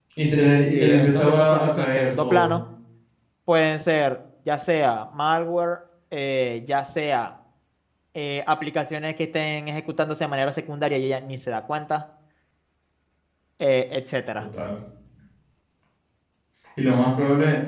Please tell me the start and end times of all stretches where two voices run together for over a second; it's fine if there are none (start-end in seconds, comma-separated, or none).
0.7-2.5